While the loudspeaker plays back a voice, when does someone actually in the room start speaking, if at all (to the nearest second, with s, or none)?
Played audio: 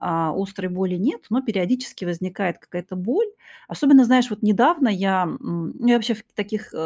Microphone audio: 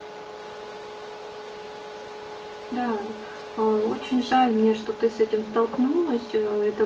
3 s